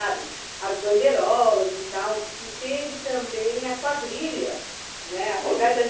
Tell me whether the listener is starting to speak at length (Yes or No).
No